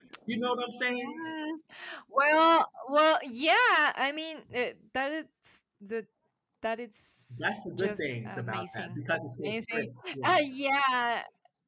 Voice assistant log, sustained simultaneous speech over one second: present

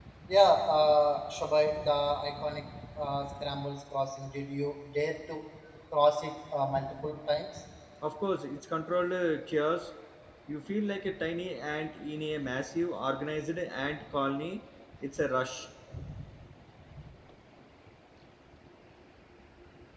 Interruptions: none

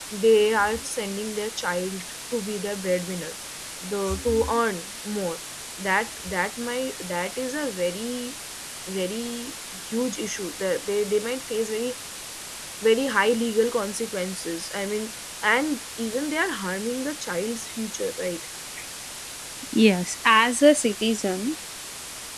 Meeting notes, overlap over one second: none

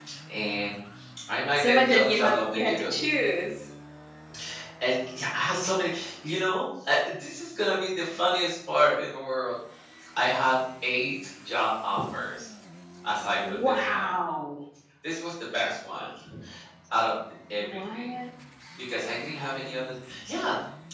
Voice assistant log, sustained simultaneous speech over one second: present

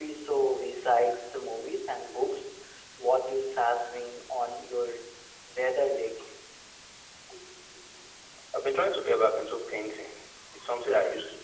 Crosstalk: none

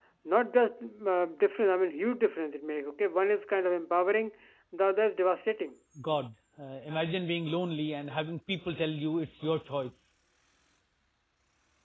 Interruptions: none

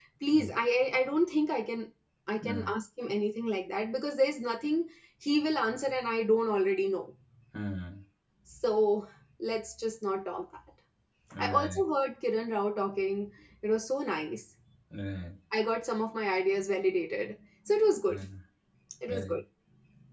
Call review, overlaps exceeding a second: none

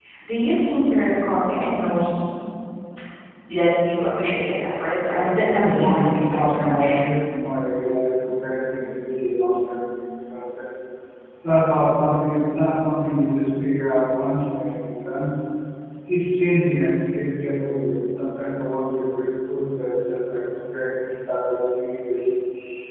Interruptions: present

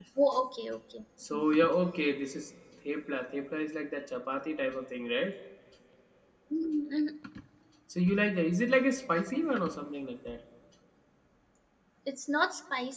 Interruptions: none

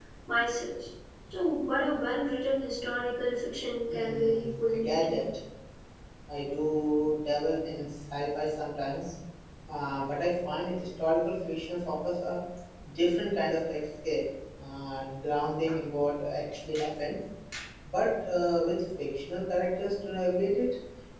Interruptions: present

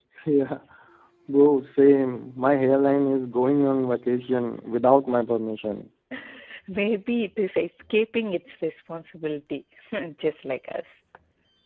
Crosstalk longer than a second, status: none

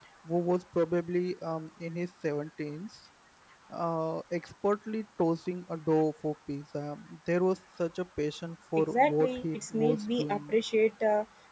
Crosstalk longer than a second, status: present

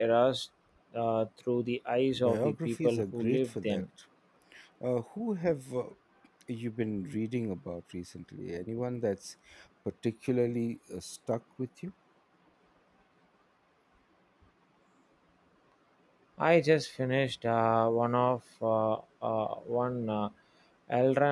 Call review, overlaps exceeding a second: present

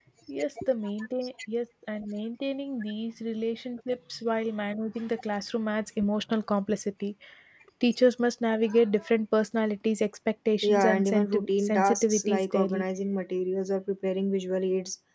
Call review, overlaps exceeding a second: present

